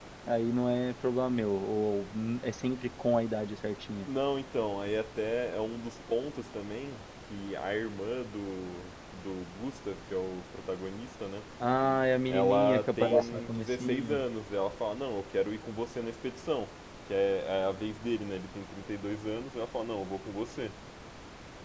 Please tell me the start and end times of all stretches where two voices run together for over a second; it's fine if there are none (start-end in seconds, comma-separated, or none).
12.3-14.2